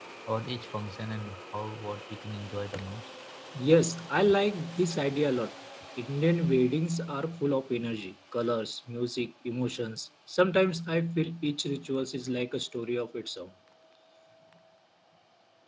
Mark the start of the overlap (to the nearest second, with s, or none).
none